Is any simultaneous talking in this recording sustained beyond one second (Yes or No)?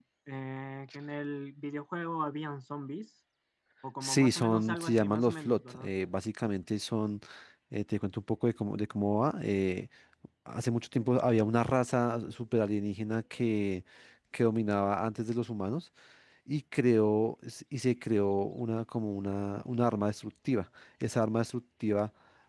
Yes